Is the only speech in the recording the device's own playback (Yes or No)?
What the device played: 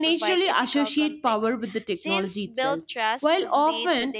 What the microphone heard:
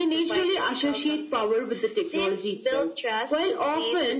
Yes